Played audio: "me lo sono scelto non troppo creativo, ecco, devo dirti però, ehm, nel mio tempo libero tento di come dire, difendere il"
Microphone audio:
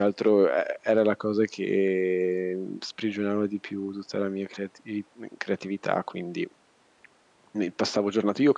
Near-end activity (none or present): present